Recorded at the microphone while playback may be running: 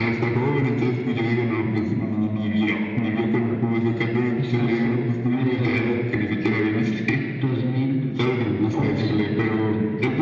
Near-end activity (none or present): none